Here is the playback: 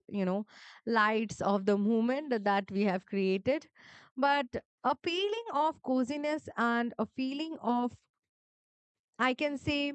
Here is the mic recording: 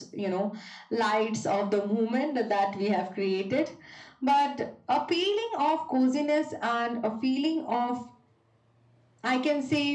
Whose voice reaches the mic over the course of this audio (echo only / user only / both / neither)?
echo only